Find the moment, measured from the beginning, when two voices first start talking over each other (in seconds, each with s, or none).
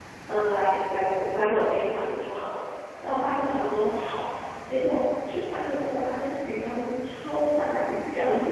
none